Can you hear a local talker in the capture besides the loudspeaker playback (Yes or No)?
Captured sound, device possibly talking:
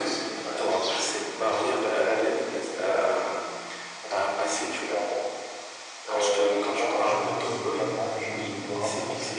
Yes